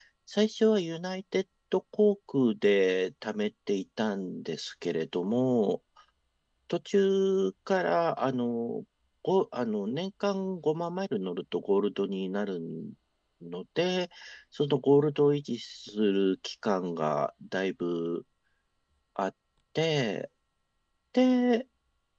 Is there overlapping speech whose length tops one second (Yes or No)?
No